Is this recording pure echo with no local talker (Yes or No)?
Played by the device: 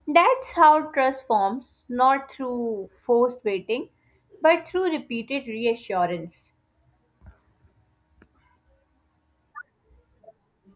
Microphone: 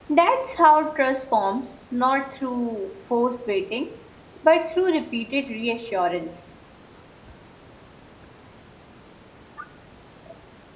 Yes